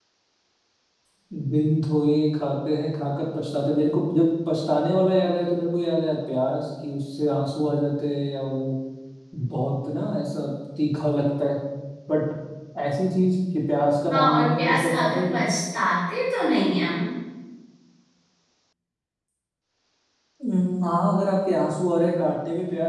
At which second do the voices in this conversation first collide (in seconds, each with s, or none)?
14.1 s